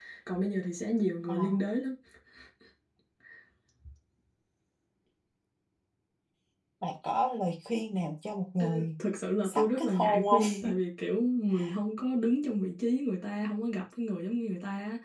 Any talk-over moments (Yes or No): Yes